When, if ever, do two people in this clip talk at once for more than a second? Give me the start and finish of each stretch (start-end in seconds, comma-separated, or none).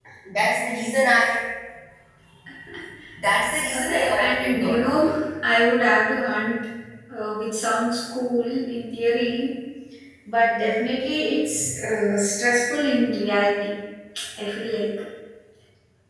3.7-5.0